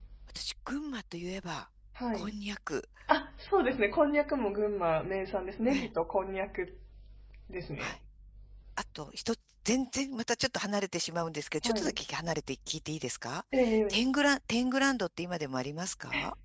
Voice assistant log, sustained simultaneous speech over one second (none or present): none